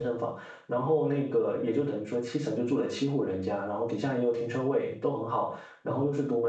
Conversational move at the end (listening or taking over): listening